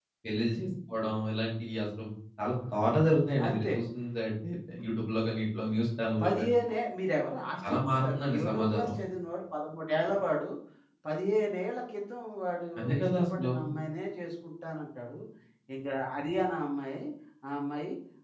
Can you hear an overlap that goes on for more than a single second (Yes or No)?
Yes